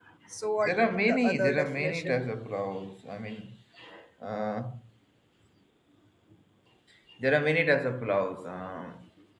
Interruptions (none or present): present